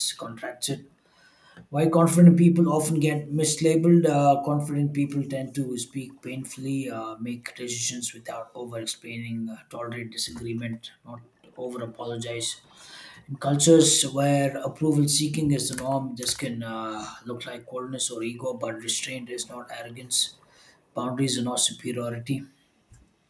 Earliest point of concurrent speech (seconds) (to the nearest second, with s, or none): none